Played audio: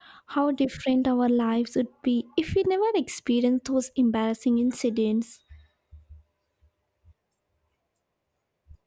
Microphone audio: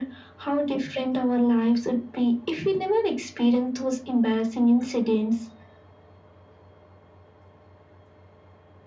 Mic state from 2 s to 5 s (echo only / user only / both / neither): echo only